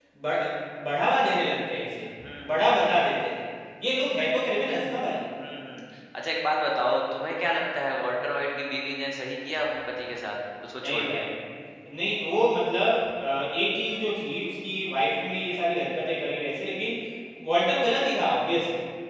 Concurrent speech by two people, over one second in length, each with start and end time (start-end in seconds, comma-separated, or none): none